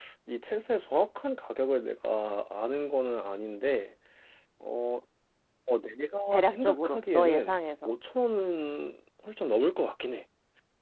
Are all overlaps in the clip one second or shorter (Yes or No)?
No